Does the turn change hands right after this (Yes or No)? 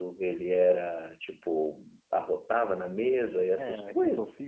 Yes